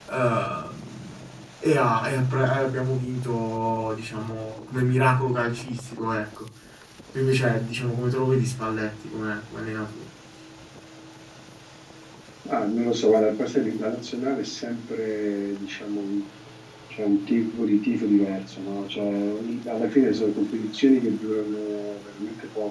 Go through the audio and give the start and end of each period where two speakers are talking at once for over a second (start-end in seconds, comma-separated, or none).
none